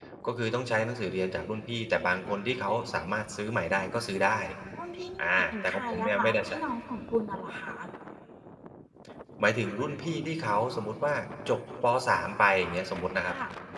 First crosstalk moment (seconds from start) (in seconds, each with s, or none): 5.2 s